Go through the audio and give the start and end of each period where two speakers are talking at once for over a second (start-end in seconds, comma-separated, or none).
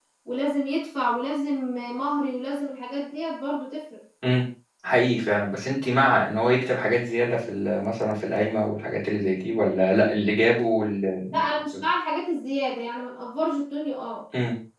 none